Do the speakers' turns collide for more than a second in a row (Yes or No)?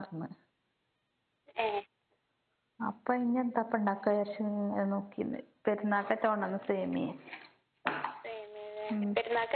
No